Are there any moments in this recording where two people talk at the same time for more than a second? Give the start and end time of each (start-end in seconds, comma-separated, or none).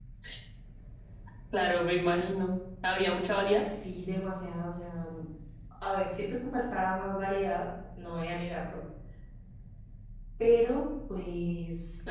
none